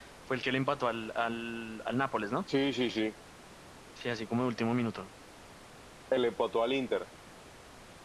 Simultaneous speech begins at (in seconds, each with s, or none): none